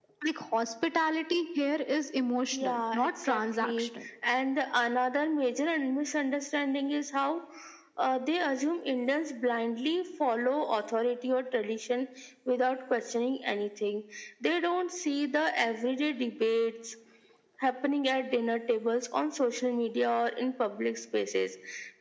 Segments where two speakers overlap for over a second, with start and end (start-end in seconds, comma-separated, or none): 2.5-3.9